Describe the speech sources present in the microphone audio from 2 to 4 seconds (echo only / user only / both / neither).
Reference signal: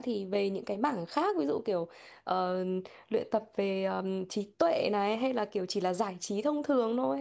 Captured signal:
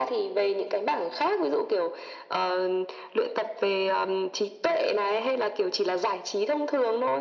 echo only